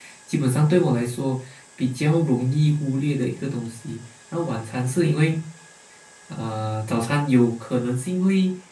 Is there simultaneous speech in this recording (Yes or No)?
No